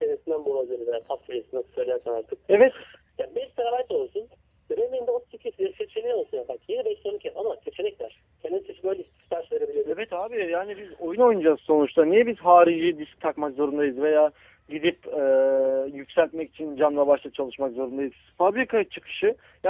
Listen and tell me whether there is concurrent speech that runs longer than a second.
No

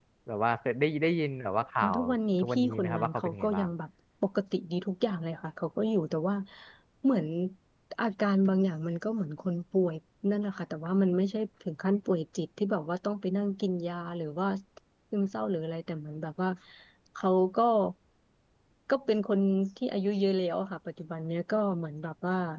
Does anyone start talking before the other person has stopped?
Yes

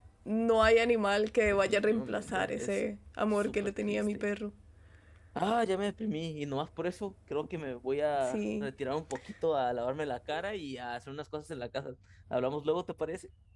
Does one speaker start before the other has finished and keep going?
Yes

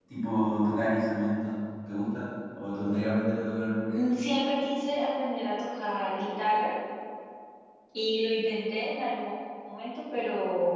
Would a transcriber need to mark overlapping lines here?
No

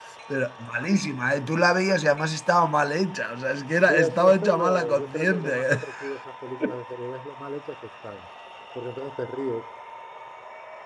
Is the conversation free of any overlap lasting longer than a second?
No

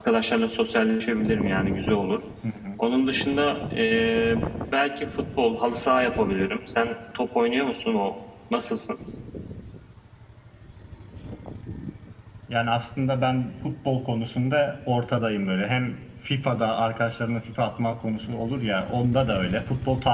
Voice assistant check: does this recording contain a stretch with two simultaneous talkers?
No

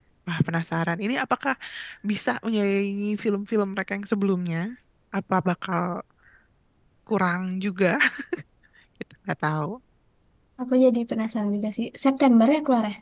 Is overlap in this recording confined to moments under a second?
Yes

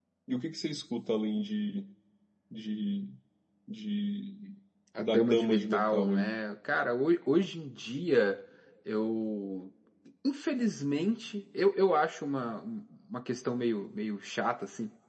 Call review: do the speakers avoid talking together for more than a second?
No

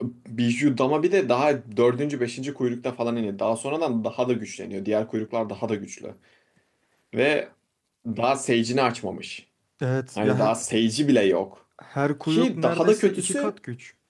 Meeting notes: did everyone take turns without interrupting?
No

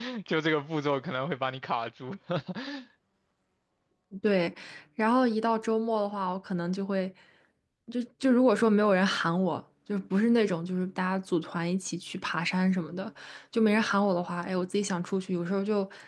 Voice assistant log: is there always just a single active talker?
Yes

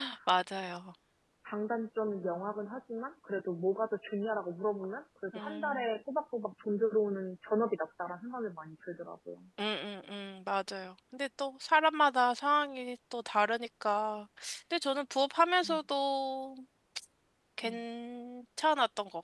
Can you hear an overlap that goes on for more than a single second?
No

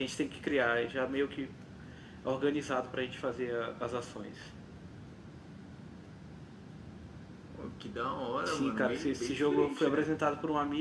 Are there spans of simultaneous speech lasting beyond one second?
Yes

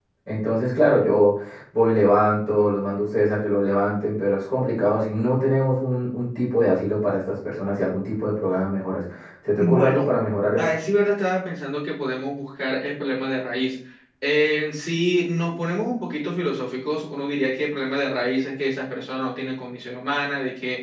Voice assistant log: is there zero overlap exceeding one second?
Yes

